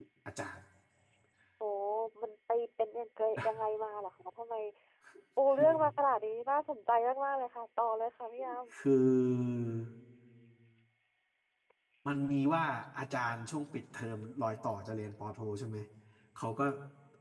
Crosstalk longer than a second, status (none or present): none